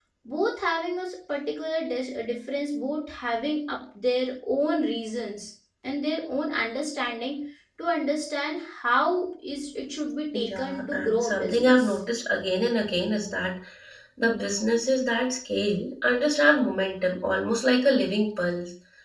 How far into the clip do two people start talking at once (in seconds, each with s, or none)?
10.3 s